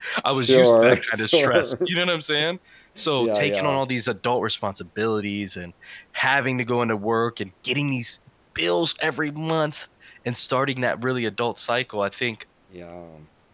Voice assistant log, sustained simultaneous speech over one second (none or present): present